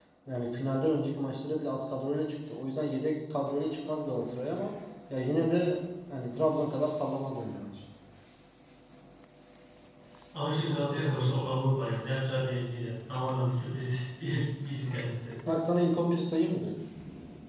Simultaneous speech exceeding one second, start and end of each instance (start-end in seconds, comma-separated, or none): none